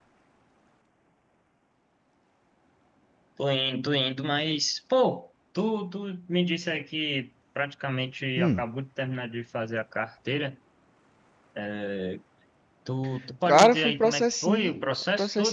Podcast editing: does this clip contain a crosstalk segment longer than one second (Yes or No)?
Yes